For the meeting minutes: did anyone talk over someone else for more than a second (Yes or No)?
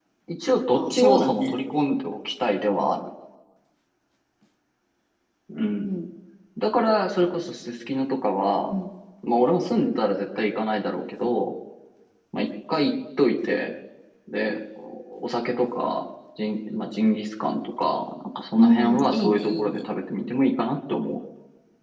Yes